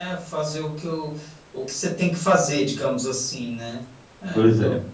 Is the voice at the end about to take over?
Yes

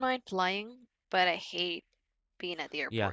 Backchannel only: No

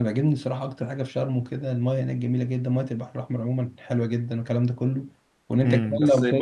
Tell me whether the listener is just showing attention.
No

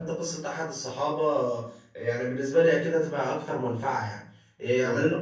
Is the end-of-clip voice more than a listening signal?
No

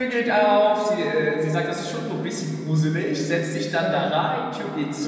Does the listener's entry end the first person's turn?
No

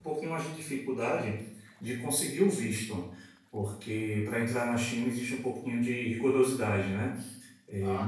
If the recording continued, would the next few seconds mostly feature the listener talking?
Yes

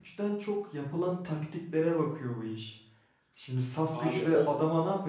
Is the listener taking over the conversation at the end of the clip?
No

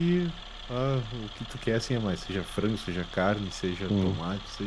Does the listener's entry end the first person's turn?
No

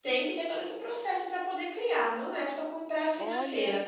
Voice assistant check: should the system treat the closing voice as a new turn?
No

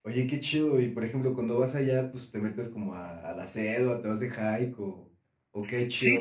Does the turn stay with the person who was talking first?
No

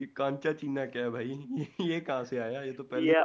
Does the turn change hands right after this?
Yes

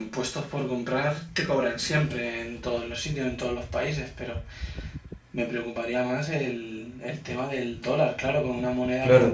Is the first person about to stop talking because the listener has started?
Yes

